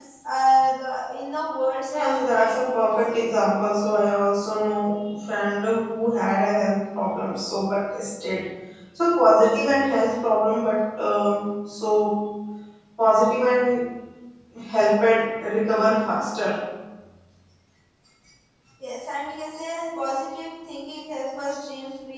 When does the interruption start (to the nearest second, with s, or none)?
2 s